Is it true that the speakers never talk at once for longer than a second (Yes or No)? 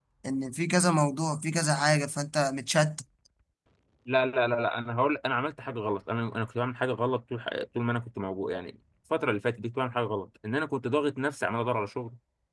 Yes